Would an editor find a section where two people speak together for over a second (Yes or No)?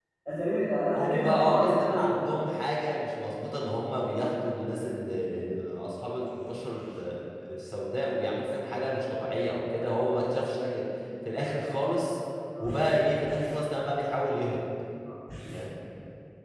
Yes